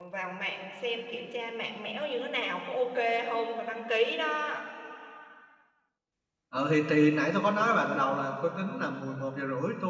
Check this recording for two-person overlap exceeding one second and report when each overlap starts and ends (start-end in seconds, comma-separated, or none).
none